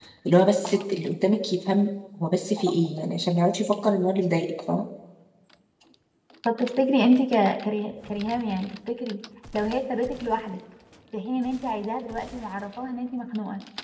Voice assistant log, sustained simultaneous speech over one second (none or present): none